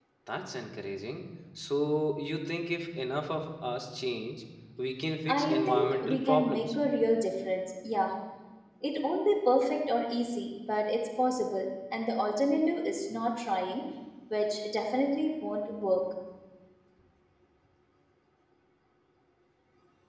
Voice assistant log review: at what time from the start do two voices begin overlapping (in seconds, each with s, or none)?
5.3 s